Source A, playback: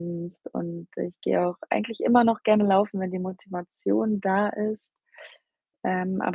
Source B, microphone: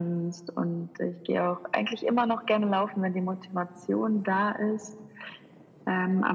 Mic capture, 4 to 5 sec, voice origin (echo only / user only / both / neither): echo only